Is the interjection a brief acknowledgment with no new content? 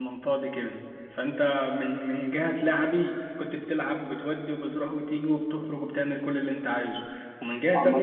Yes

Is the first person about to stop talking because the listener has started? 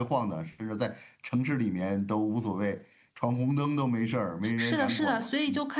Yes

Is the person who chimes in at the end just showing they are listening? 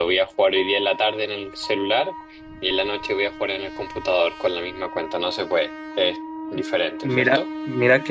No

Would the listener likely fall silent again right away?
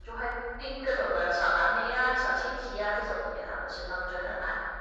No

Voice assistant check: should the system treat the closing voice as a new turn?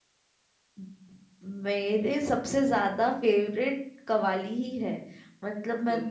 No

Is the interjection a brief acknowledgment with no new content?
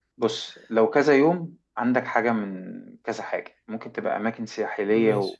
Yes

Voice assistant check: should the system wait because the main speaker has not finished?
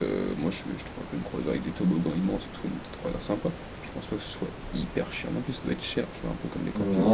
No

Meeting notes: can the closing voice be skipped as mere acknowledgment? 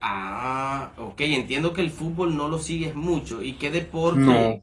Yes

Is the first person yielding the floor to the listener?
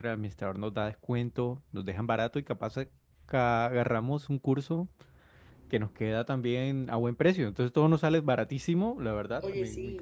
No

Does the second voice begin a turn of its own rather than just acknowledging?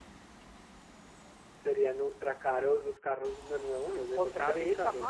Yes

